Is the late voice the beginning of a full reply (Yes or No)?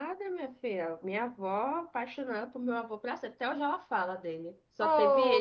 Yes